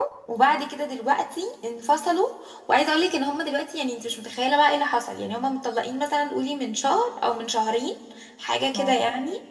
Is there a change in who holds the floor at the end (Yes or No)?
No